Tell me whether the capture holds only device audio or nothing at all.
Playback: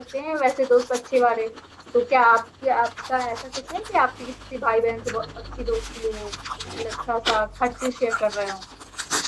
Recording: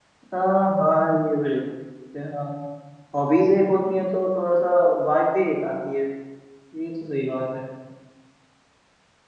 No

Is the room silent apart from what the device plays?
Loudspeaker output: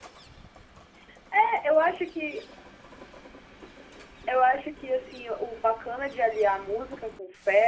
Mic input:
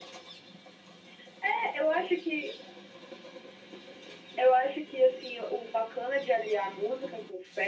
Yes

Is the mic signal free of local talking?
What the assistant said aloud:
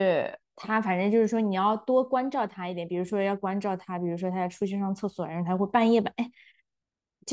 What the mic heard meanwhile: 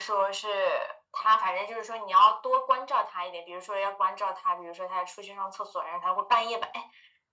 Yes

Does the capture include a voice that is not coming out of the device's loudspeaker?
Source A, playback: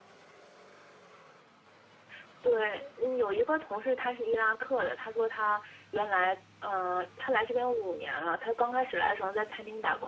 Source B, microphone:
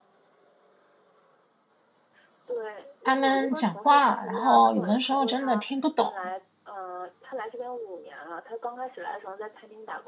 Yes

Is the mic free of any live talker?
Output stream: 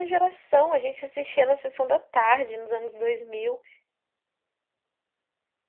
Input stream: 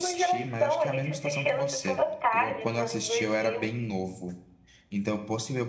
No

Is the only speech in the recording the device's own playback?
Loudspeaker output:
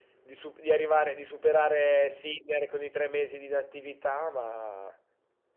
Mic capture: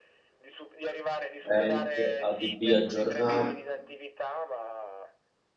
No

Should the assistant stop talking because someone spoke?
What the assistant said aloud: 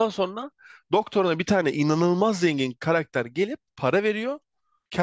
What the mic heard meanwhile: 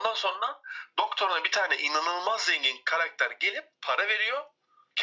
No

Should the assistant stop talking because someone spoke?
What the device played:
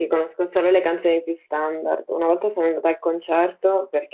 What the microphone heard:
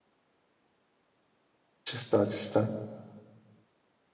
Yes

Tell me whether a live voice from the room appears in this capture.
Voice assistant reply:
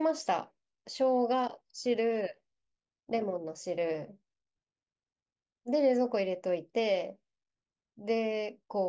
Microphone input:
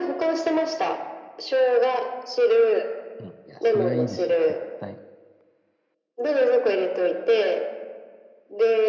Yes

